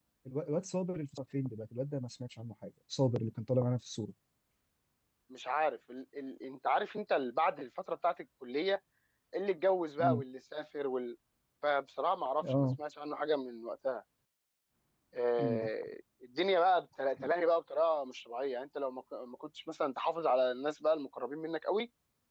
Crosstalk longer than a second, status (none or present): none